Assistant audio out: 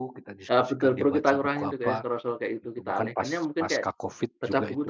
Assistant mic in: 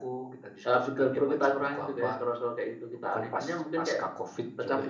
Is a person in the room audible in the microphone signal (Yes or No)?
No